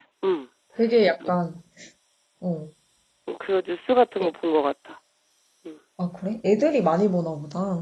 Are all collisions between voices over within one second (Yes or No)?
Yes